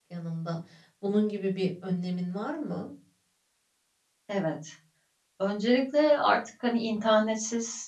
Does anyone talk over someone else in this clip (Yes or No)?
No